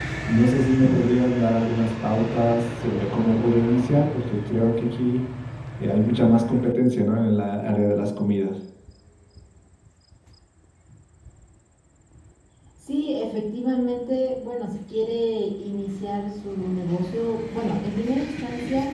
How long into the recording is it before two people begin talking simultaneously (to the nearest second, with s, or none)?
none